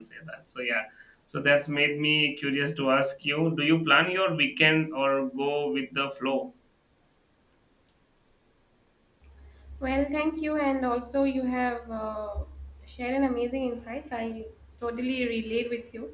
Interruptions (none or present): none